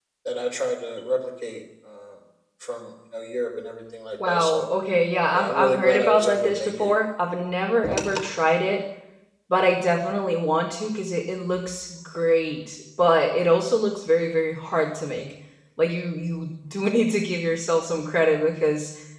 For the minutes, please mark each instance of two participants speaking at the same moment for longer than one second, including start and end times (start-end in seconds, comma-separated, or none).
5.3-6.9